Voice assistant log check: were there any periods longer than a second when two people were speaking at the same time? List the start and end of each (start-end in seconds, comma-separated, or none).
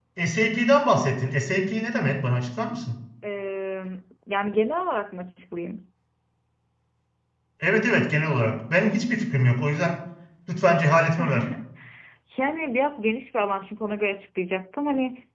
none